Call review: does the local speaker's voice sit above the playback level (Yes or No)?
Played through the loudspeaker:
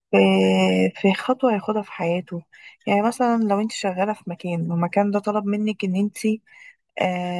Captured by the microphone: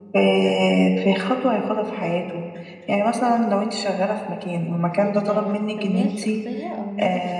No